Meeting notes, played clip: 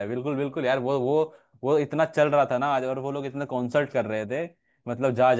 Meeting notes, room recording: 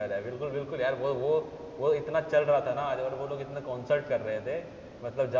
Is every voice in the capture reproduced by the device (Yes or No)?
Yes